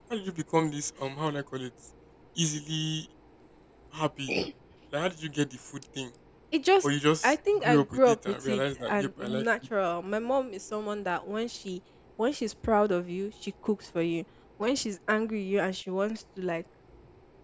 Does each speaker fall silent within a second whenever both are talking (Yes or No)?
No